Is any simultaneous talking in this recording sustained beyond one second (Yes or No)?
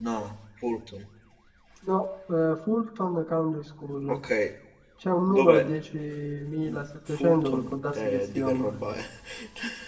Yes